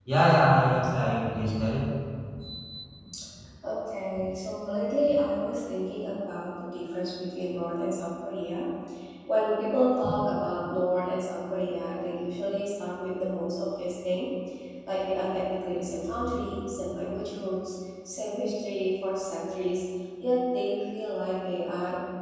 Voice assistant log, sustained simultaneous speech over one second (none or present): none